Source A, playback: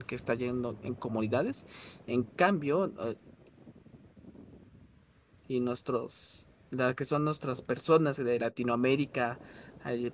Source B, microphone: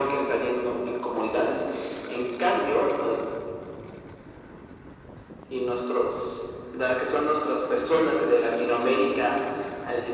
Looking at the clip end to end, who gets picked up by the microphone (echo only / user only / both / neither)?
echo only